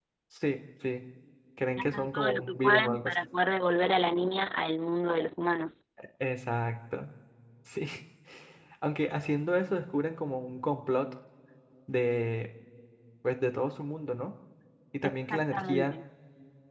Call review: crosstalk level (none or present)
present